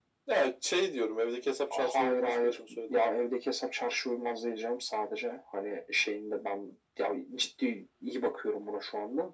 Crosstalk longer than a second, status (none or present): present